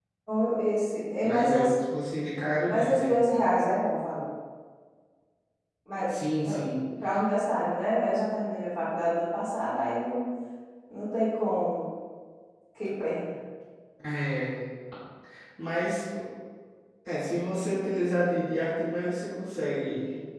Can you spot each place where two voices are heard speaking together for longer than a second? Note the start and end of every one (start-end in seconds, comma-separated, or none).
none